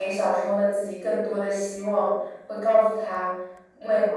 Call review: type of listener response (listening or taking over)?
listening